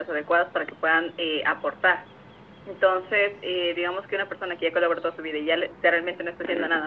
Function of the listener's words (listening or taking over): listening